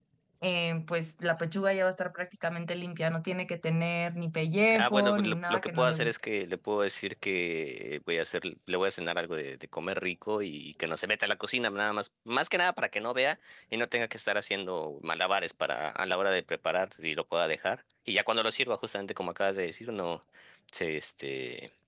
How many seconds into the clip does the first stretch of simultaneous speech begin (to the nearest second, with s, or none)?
5 s